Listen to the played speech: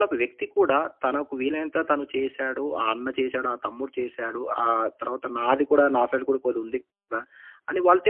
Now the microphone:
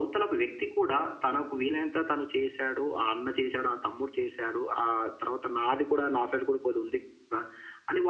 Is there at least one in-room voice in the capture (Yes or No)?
No